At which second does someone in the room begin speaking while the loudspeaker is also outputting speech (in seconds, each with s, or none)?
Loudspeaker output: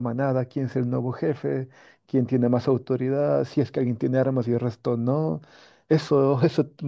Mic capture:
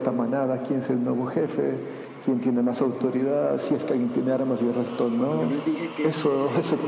5.2 s